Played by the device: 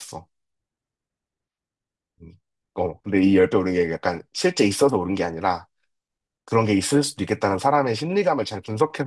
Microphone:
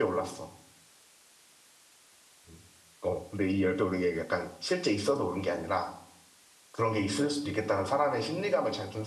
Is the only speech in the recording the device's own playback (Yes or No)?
Yes